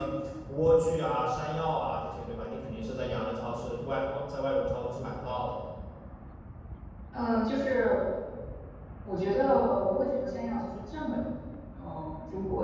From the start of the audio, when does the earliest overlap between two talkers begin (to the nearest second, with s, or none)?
none